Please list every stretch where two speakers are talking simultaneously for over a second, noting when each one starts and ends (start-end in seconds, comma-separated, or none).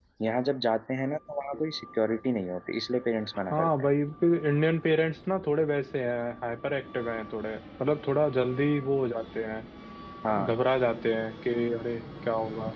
none